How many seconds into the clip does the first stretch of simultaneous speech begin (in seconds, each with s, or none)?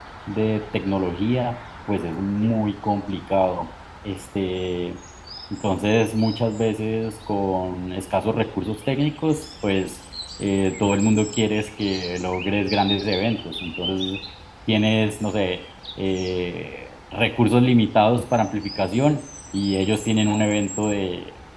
none